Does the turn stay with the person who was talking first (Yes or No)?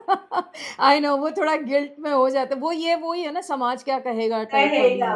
No